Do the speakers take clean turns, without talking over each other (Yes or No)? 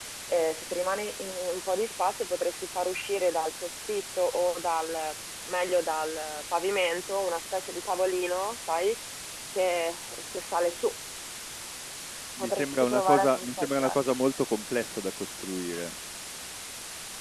No